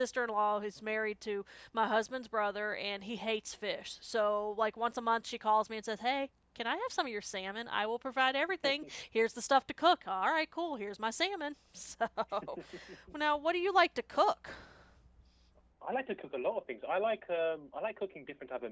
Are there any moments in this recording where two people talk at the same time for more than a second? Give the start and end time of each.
none

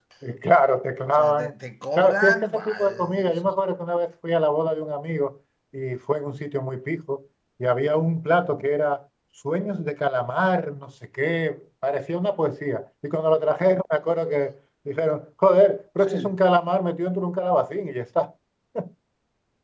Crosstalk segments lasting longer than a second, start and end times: 2.0-3.3

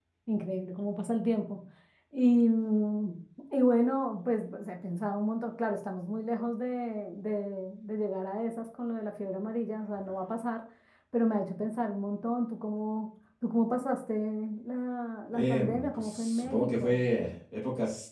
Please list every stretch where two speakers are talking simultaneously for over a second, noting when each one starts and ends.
15.3-17.0

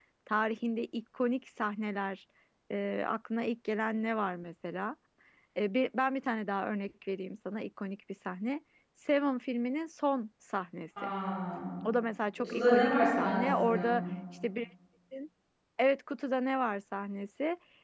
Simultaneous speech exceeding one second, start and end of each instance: 12.4-13.8

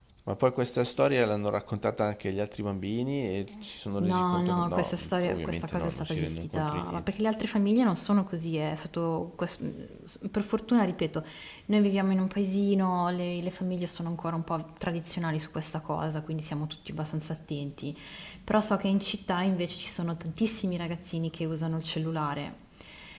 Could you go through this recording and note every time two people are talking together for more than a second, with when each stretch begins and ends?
4.0-7.0

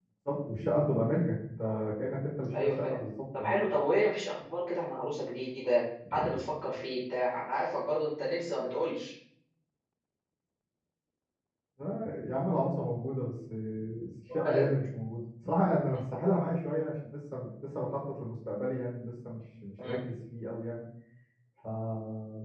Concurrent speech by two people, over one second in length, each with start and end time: none

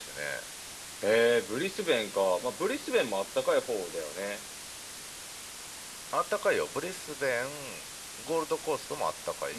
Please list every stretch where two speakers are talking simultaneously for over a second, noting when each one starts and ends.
none

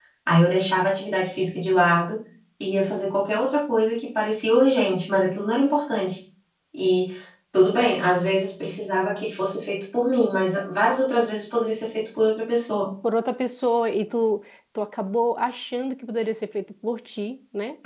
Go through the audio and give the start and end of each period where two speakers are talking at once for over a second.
none

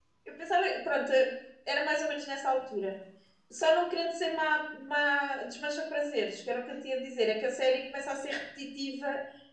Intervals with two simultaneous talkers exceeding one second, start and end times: none

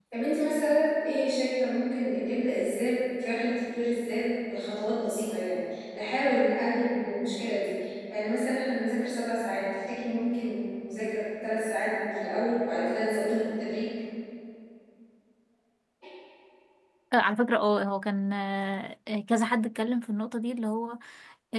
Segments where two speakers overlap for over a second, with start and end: none

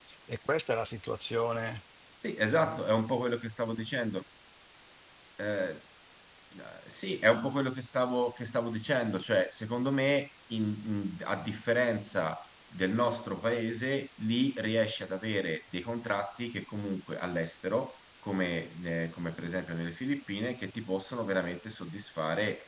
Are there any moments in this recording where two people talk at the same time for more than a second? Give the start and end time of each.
none

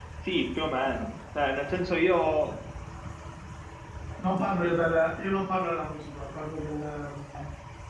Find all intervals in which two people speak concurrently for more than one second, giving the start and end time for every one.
none

